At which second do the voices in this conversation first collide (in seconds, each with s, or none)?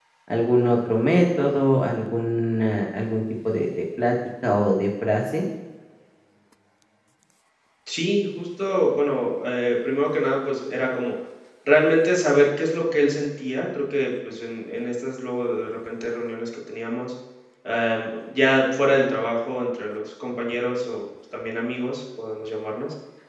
none